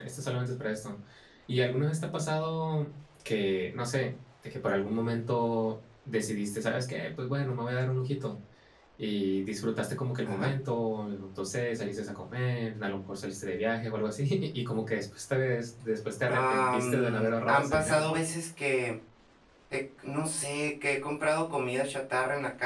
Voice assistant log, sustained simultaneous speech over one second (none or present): present